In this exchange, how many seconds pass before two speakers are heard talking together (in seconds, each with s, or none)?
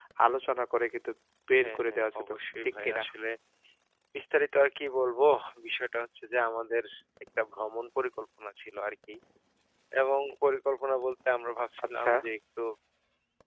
1.6 s